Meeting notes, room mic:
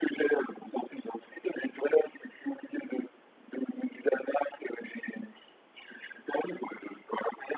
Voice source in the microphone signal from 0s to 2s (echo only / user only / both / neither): echo only